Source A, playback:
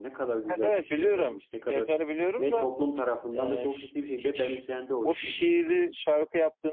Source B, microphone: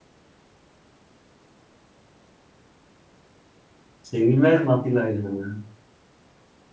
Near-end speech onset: 4 s

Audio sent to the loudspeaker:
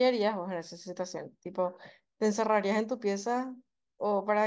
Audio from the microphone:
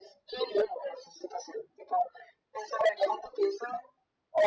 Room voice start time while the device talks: none

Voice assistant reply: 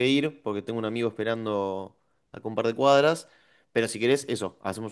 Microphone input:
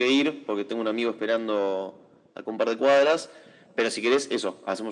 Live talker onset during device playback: none

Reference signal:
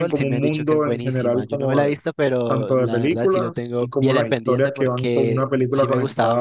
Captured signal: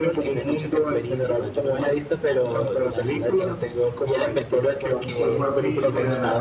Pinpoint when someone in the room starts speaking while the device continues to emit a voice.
5 s

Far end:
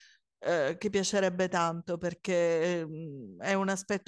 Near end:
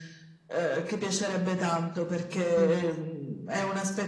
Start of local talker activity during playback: 3 s

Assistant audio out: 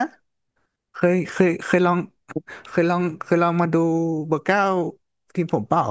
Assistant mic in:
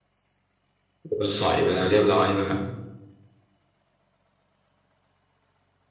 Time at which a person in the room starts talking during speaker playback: 1 s

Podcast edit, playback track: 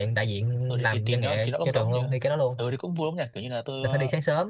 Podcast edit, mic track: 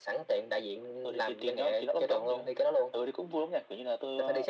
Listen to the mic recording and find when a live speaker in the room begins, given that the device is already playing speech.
none

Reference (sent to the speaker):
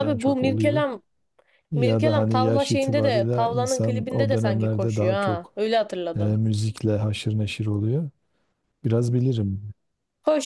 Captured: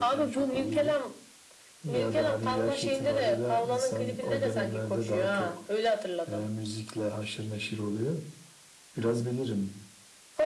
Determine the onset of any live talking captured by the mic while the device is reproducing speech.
none

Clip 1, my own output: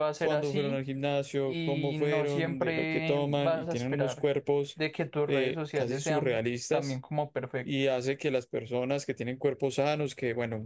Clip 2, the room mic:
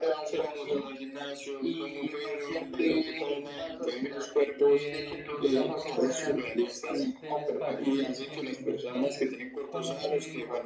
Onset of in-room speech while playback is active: 5 s

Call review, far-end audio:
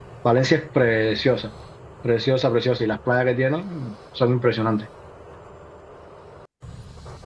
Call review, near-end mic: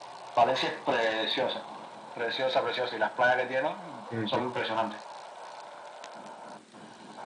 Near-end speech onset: 4 s

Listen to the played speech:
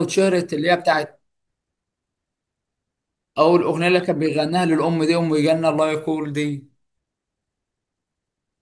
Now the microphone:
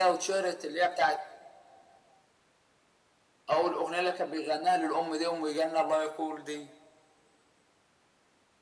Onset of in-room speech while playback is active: none

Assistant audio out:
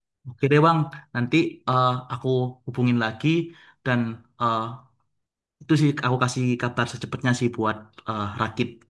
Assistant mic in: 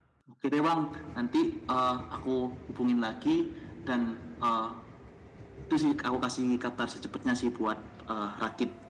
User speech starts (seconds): none

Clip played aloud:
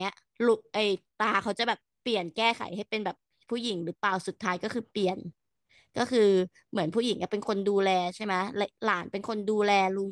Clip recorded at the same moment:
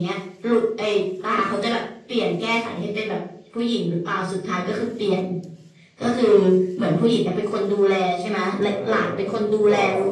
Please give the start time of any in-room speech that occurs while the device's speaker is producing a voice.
9 s

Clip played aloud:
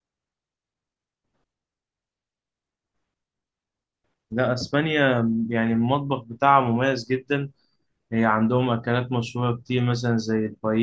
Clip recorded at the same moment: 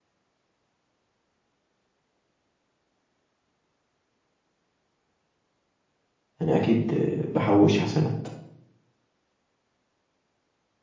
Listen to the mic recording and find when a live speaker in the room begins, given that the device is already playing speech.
6 s

